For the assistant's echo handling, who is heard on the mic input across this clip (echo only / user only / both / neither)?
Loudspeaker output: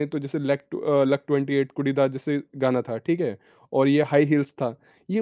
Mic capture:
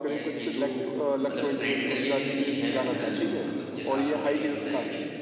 both